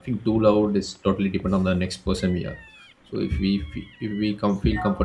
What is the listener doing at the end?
listening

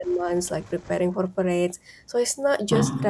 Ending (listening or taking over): listening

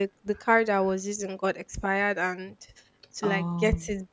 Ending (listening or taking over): listening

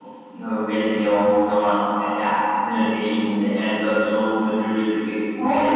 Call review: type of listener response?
taking over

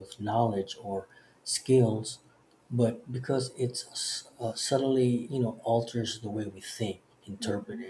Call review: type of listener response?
listening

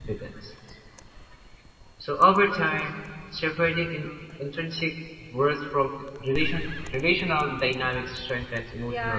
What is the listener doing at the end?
taking over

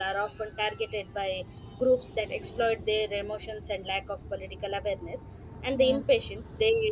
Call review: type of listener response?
listening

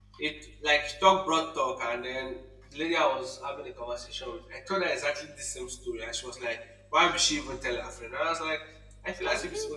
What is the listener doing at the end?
listening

